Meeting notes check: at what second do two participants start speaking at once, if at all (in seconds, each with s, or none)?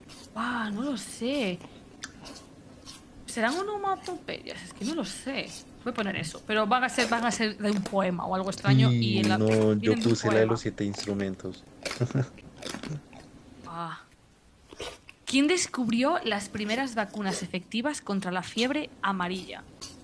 8.7 s